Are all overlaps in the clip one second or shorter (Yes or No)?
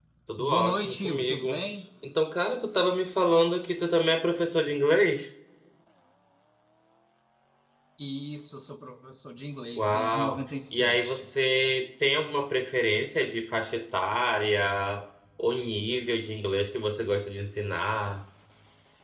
No